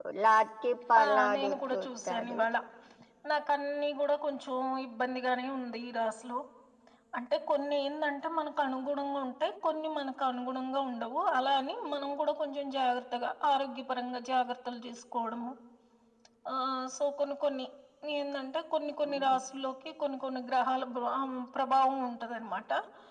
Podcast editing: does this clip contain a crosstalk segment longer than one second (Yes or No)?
Yes